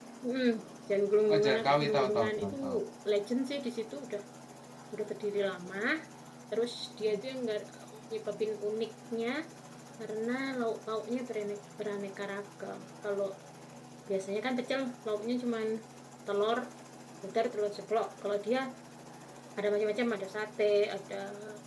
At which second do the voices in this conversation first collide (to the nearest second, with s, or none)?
1 s